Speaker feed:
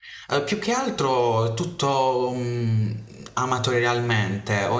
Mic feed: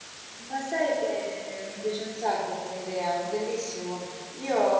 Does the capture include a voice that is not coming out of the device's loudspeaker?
Yes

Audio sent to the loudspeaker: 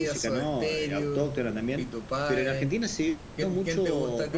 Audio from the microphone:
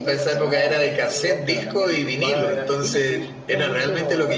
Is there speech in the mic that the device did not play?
Yes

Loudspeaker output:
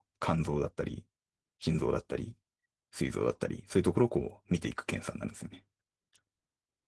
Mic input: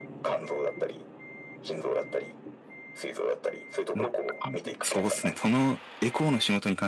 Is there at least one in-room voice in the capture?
Yes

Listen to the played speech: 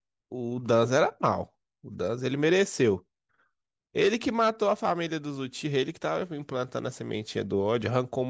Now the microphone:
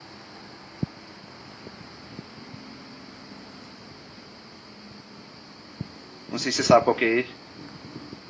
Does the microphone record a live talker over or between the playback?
Yes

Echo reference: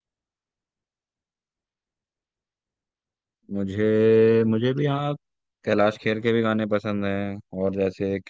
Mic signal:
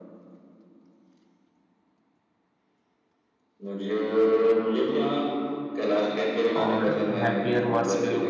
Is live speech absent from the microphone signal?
No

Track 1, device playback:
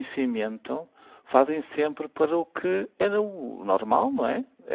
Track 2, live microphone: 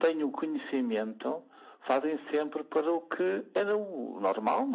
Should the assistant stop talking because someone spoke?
No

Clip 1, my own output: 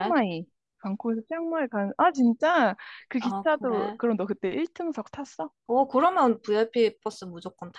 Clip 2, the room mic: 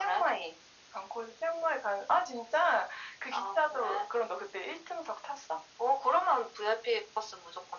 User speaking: No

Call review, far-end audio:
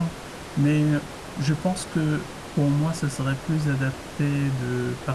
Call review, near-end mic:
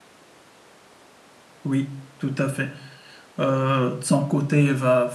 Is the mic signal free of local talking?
No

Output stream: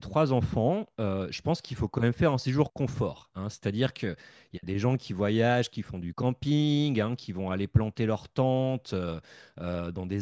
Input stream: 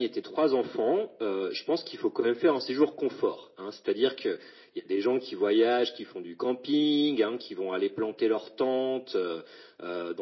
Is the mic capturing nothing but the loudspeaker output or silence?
Yes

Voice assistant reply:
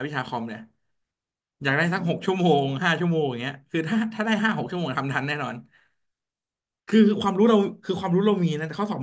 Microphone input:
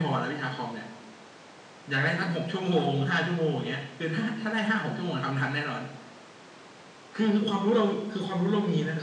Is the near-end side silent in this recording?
Yes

